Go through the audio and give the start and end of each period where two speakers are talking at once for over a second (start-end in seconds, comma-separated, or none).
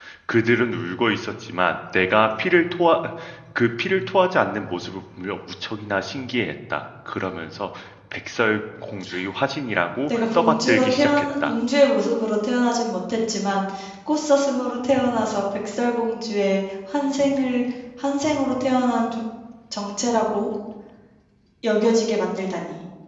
10.1-11.5